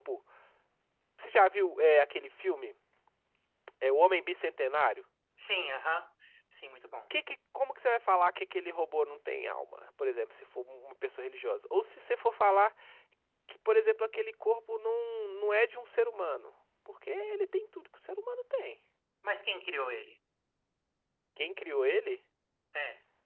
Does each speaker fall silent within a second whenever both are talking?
Yes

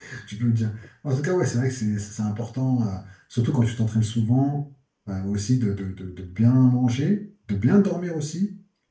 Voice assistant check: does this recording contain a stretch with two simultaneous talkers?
No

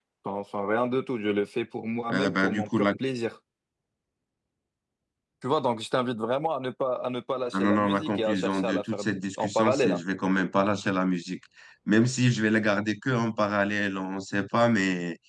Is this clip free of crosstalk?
No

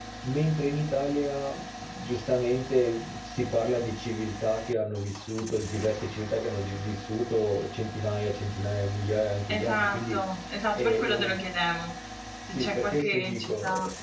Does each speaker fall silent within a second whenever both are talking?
No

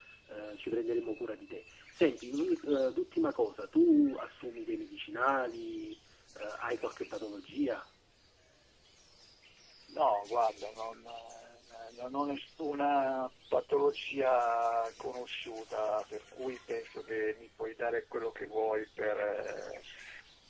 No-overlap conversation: Yes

